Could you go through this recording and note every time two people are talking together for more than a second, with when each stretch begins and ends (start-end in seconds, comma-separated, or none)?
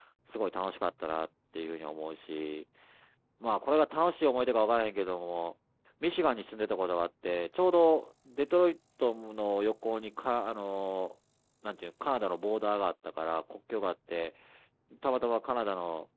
none